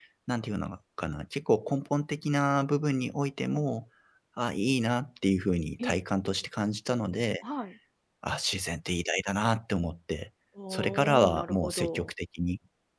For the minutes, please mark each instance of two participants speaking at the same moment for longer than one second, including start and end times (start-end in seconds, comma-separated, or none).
10.7-12.1